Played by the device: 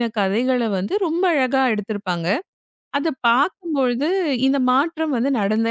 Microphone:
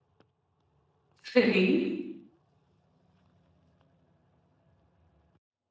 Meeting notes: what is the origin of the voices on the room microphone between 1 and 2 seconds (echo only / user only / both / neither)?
user only